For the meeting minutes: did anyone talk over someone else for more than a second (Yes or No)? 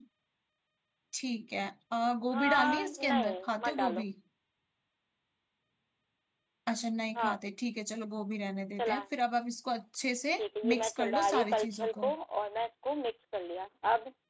Yes